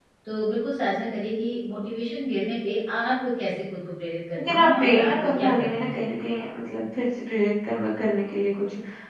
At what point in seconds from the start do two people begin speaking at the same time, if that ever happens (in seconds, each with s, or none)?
4.4 s